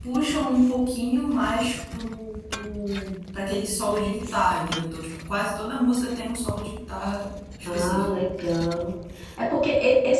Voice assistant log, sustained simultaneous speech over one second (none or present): none